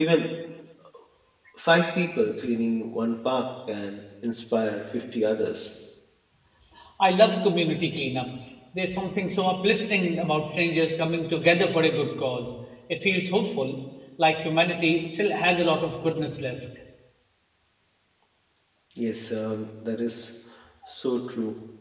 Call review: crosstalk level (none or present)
none